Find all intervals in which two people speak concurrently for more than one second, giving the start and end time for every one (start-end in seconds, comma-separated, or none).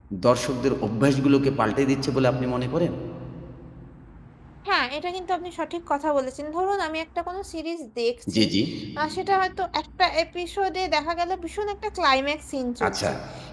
none